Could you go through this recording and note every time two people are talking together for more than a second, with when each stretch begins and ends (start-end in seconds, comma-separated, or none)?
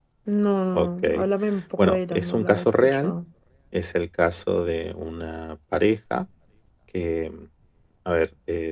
1.8-3.1